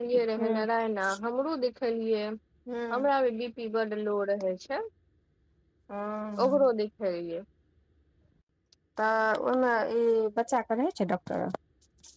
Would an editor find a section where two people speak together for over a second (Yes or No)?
No